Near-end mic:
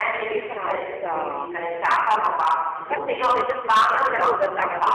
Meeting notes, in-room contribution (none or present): present